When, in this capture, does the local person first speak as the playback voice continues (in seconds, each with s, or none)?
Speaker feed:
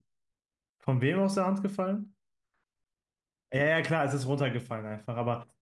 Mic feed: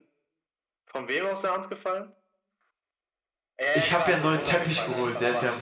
3.7 s